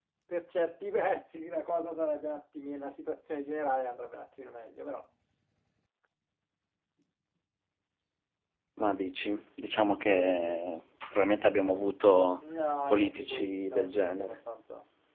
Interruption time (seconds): 12.9 s

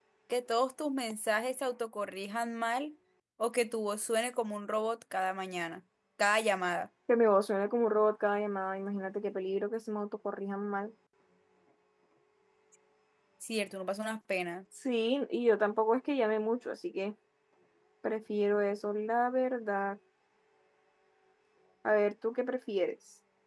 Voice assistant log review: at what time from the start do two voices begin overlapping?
none

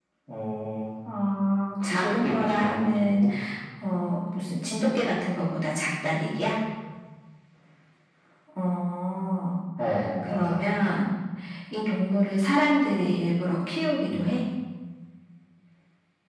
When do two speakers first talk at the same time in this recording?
1.8 s

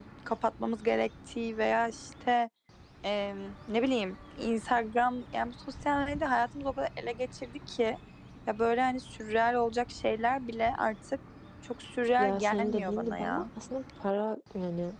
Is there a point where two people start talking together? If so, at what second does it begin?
12.2 s

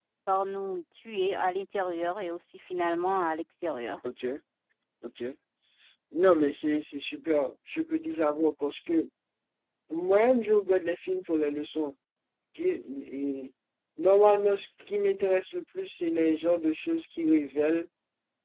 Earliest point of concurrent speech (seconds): none

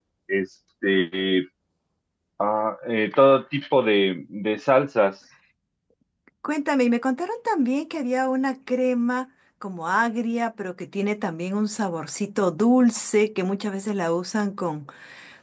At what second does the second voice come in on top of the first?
none

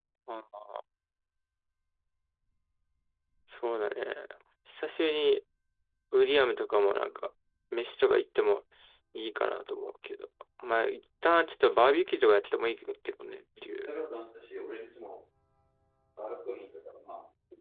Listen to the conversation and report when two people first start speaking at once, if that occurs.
none

